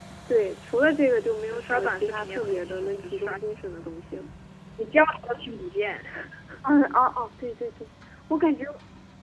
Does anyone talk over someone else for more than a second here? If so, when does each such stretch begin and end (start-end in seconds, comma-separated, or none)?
1.5-3.4